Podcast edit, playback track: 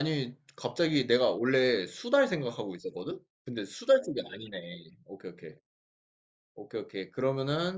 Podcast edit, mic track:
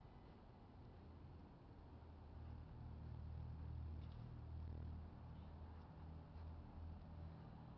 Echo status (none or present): none